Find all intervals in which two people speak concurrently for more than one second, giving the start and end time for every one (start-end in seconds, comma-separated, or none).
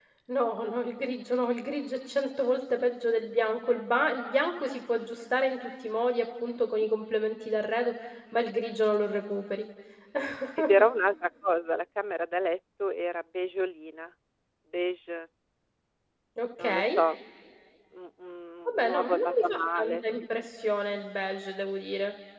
18.6-20.0